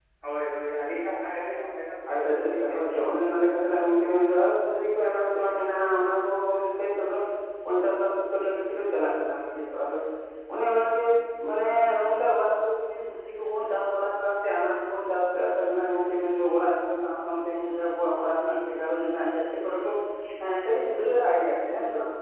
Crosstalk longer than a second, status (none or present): present